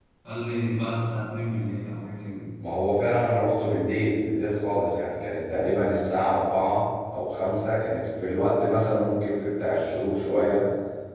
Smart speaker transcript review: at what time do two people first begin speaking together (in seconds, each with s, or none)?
none